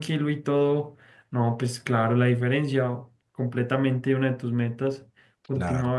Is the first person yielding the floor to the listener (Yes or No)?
Yes